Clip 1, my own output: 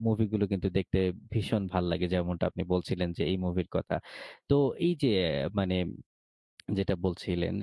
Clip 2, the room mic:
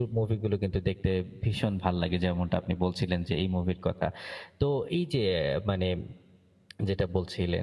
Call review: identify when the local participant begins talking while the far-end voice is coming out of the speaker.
none

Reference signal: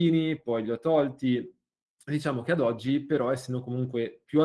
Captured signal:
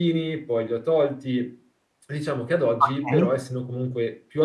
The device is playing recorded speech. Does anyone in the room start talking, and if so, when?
2.8 s

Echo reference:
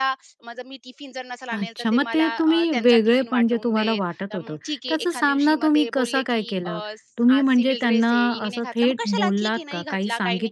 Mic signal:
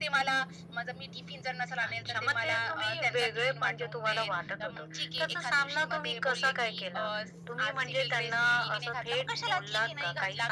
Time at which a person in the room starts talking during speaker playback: none

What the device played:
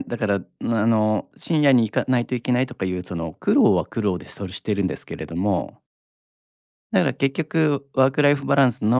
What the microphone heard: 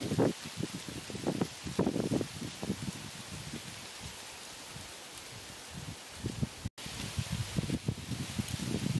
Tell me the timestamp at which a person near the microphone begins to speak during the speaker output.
none

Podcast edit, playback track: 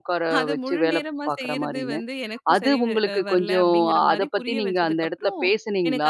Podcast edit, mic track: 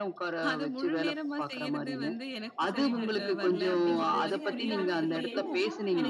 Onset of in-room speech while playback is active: 2.7 s

